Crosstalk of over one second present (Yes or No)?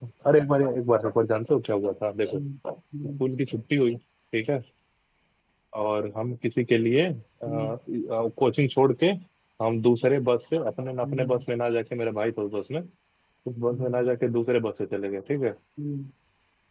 No